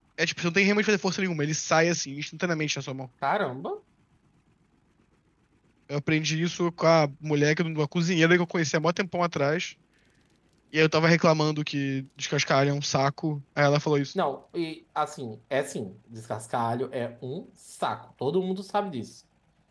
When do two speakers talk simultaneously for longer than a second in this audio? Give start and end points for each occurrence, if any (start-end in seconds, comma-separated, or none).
none